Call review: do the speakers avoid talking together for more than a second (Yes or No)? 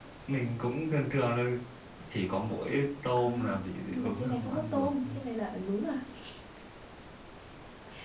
No